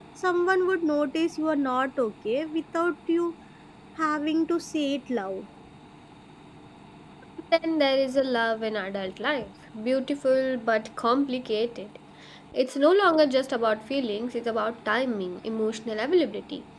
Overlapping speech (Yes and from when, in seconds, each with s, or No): No